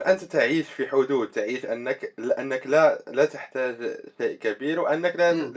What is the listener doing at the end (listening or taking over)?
listening